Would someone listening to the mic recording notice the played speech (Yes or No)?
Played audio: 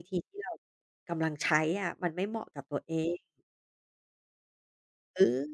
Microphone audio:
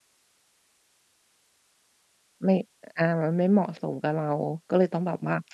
No